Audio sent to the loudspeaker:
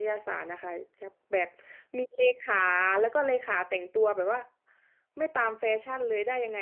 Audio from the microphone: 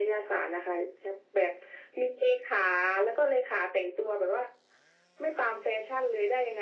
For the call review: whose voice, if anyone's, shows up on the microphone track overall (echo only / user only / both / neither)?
echo only